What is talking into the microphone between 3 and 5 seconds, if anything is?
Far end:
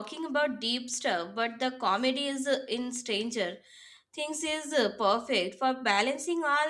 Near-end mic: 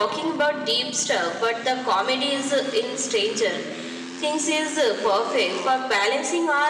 echo only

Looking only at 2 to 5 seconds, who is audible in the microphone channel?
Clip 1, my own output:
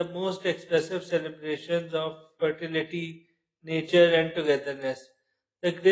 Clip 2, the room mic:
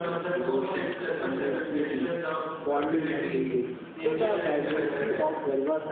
both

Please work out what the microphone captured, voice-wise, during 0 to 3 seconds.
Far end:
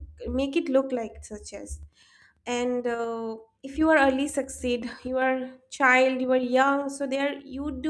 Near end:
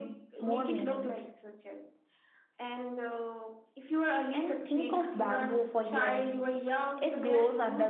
both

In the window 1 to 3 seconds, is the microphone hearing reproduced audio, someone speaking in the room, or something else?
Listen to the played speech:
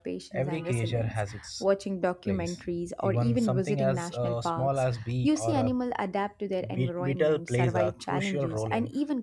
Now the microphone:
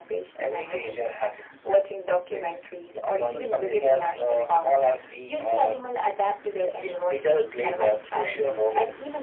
echo only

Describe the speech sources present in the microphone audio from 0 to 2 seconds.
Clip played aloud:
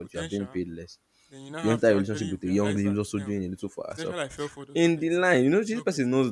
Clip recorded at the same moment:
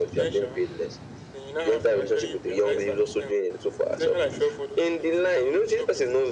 echo only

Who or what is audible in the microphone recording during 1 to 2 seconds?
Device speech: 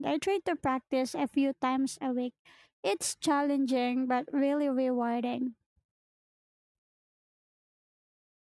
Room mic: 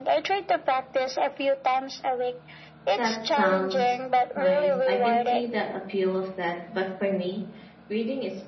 echo only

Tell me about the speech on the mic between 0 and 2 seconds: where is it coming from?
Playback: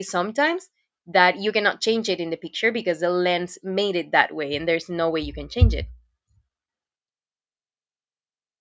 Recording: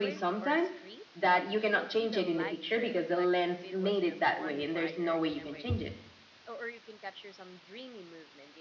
both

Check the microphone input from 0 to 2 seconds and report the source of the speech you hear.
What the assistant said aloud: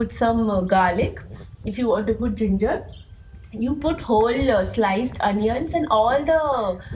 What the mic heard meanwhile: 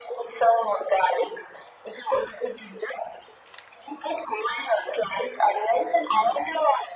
echo only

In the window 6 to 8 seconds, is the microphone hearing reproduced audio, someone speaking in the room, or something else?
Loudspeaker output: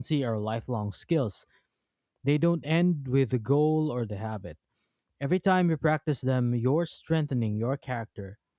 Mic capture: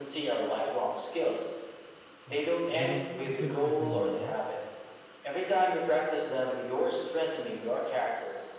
echo only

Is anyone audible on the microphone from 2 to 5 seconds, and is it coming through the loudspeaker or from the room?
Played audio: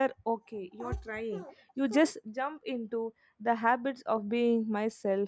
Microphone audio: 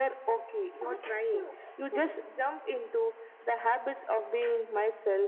echo only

